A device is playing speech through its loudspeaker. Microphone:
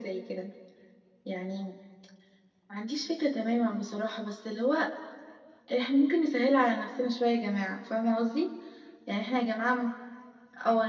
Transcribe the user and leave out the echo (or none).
none